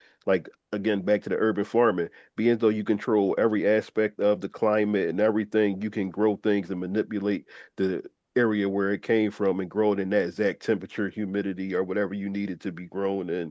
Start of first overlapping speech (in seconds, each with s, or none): none